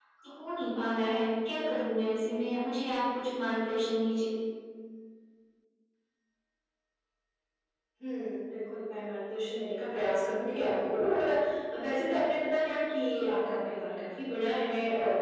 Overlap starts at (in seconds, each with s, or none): none